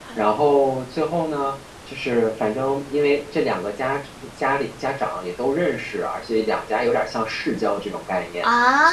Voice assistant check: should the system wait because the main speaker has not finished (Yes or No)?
Yes